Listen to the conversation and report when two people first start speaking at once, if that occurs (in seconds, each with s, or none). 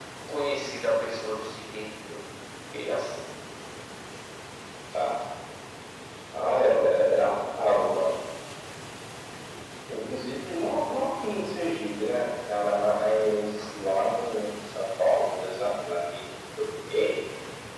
6.3 s